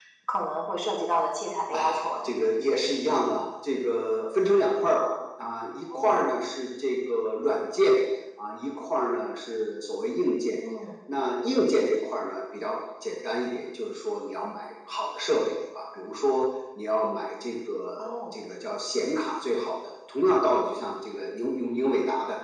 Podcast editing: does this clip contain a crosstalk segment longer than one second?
No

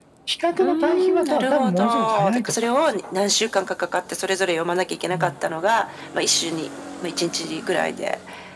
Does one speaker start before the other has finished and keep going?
Yes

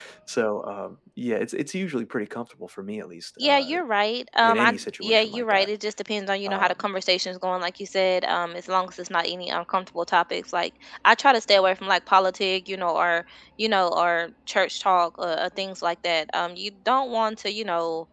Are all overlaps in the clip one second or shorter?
No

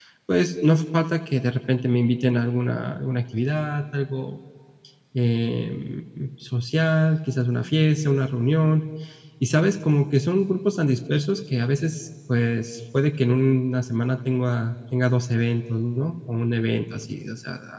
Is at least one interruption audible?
No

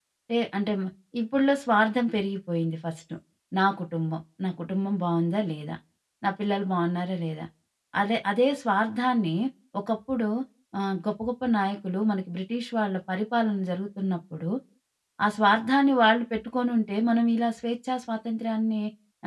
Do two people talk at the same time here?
No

